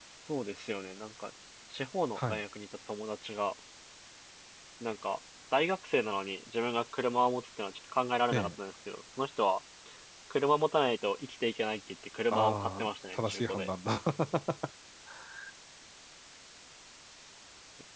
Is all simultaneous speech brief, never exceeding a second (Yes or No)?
No